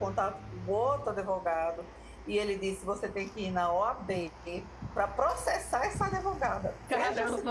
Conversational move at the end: taking over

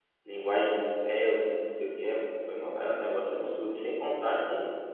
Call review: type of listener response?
listening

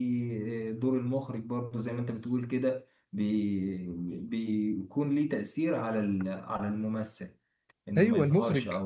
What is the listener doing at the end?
taking over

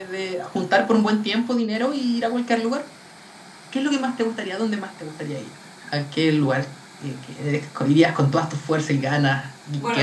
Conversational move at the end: taking over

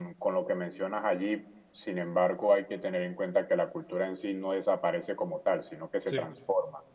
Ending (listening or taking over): listening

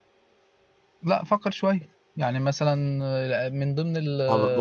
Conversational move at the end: taking over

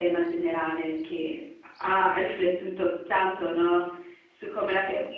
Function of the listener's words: listening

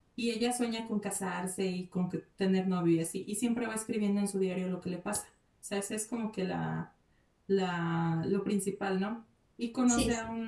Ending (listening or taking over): listening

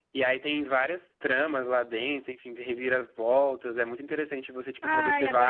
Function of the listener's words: taking over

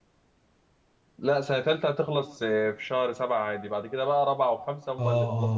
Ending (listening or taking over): taking over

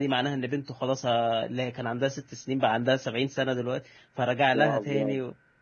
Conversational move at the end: listening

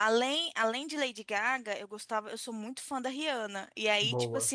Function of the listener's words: listening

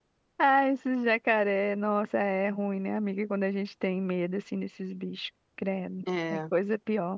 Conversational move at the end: listening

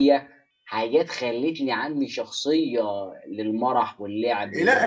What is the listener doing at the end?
taking over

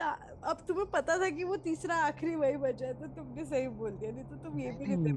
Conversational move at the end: taking over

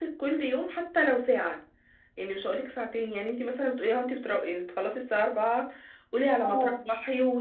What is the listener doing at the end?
listening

